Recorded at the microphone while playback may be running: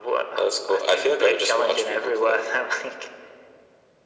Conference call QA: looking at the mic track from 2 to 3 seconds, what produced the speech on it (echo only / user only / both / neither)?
echo only